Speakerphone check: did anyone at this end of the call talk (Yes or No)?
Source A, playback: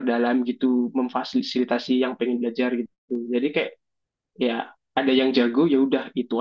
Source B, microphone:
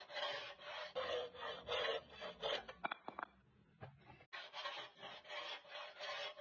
No